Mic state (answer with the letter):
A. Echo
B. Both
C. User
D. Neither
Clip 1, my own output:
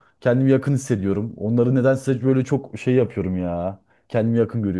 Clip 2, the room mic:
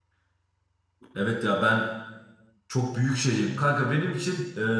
C